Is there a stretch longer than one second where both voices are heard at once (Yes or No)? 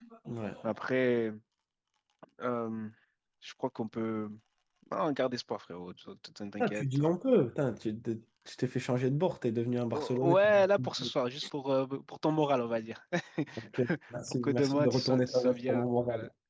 Yes